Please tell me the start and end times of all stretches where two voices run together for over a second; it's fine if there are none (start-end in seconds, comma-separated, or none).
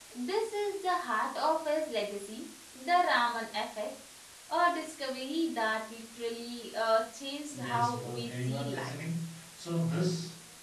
7.5-8.9